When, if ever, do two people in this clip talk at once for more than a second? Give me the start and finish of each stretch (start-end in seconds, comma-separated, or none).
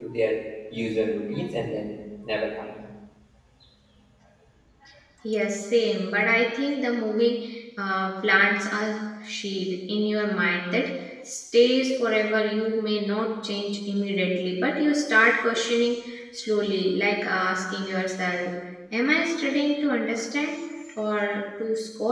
none